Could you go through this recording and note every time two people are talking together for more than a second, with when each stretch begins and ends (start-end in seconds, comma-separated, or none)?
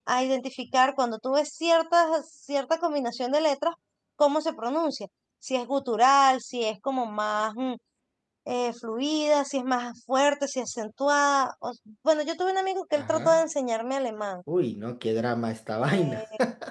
none